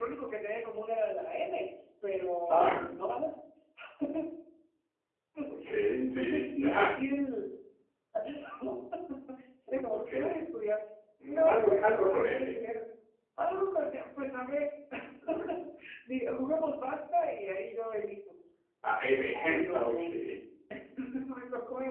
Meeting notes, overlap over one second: present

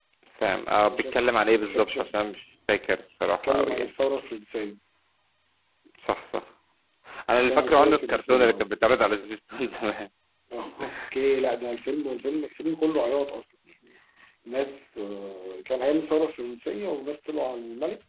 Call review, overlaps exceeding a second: present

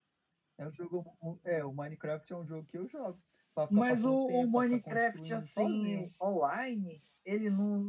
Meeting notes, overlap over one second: present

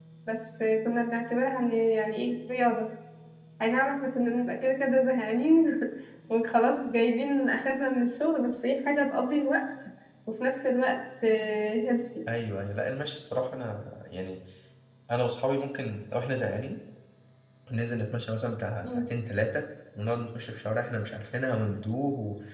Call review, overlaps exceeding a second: none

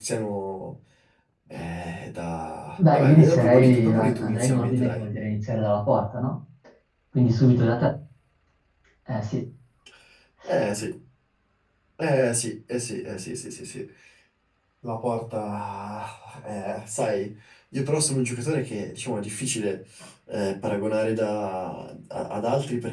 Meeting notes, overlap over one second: present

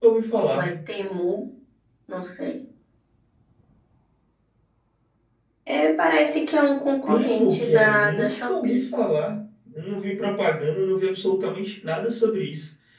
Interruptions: present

